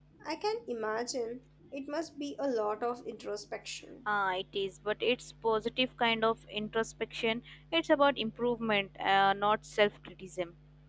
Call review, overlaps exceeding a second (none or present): none